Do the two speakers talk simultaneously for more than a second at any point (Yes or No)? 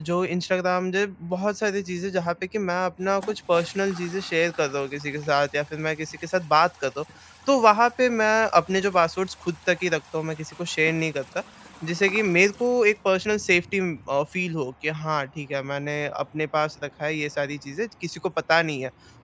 No